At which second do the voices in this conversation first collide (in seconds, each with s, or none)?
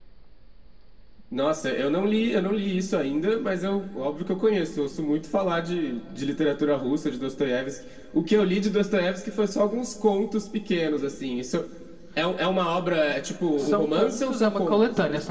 13.6 s